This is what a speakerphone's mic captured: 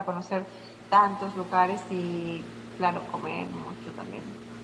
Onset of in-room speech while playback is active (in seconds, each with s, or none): none